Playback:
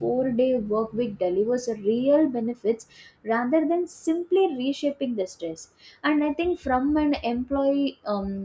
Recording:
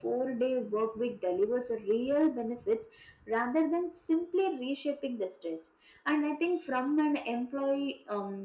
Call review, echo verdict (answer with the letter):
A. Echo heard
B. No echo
A